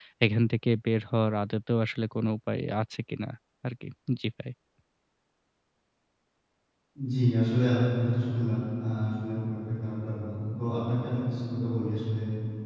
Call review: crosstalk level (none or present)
none